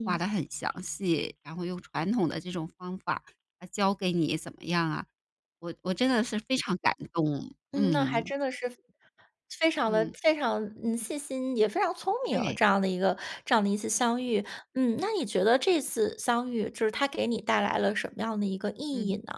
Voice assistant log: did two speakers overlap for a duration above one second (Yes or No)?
No